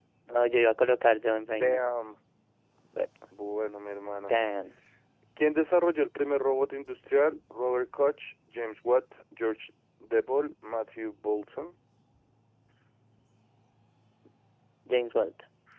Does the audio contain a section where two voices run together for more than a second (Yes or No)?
No